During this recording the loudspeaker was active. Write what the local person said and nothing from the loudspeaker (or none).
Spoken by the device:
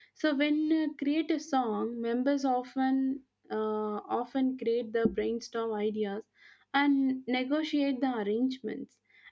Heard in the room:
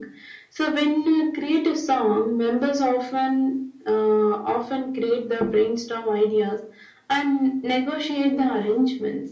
none